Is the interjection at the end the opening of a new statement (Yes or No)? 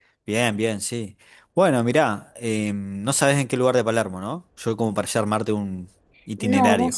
Yes